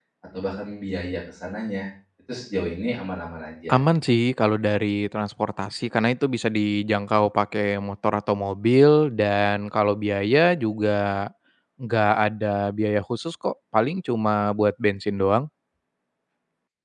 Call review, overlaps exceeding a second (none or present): none